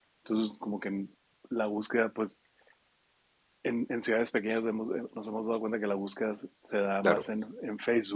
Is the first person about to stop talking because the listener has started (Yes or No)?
No